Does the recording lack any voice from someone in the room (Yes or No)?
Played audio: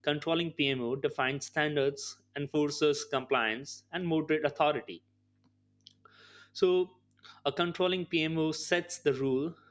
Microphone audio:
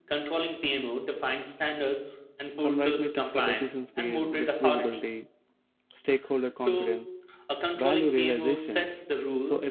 No